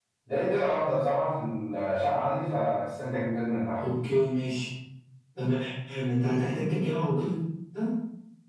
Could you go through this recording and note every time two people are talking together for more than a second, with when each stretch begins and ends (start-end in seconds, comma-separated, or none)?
none